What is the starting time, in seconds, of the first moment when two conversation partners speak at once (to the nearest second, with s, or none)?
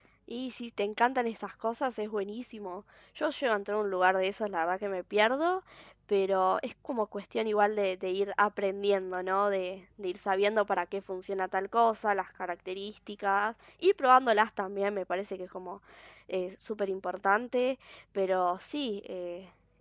none